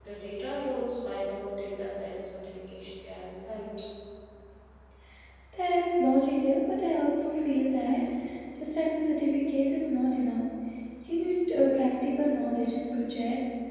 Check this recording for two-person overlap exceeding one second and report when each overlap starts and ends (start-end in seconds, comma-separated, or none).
none